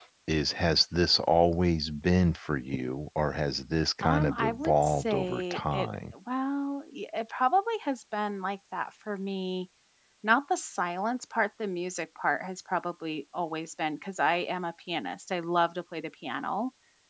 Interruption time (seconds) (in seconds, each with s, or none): 4.0 s